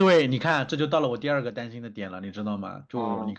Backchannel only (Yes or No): Yes